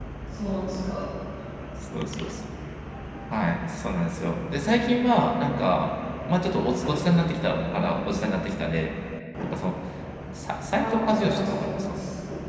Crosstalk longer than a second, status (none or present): present